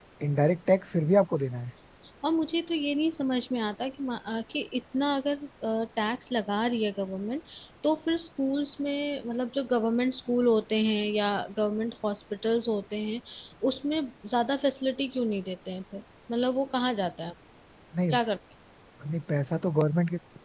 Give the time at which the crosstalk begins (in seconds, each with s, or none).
none